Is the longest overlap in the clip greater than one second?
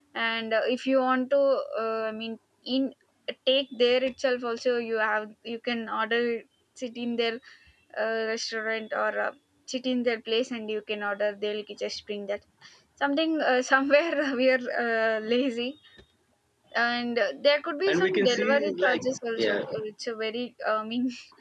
Yes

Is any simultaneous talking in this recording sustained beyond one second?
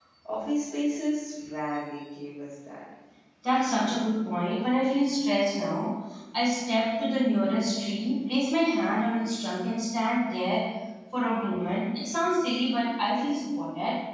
No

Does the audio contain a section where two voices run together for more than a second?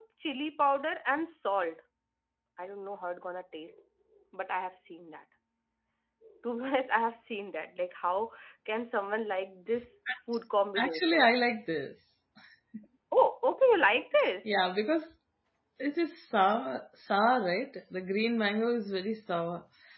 No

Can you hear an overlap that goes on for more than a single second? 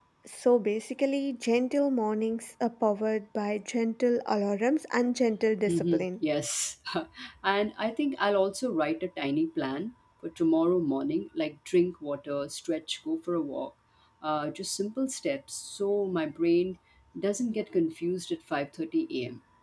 No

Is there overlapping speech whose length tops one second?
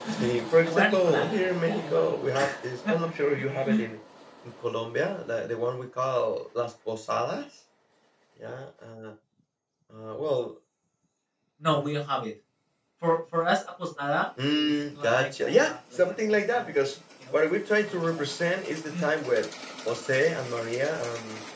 Yes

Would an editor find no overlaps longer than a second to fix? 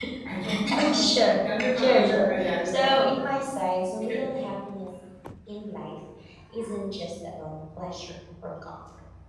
No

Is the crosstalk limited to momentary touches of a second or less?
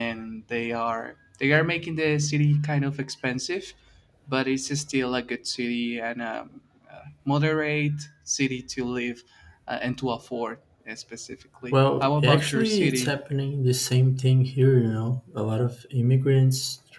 No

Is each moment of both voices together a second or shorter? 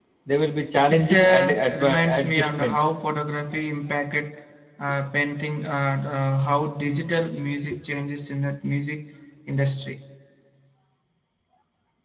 No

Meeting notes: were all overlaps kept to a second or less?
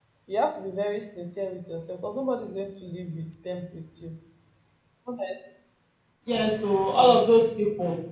Yes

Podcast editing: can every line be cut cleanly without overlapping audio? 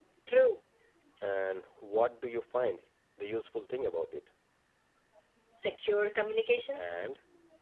Yes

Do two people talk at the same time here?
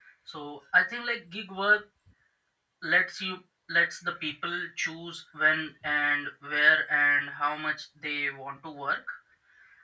No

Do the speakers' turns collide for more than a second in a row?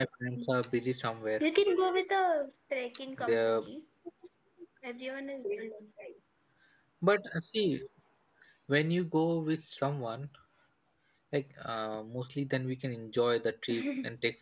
No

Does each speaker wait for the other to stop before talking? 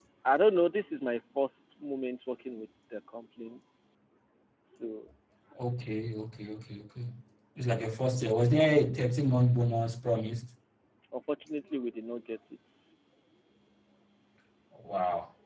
Yes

